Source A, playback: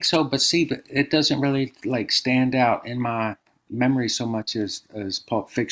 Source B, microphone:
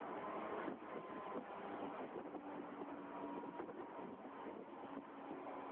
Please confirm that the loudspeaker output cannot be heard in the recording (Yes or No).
Yes